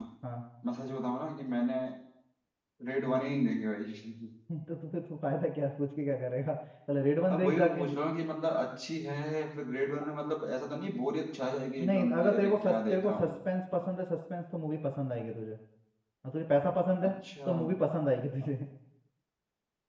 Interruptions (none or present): present